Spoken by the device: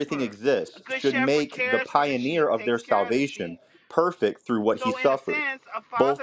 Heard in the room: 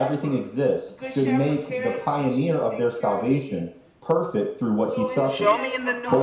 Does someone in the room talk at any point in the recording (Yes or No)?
Yes